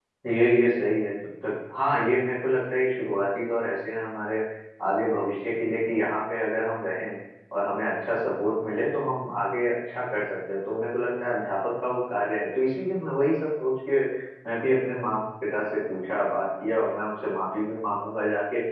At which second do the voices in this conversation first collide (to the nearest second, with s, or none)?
none